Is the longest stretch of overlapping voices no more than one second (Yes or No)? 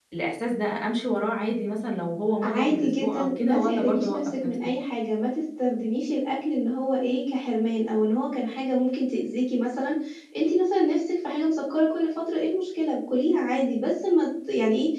No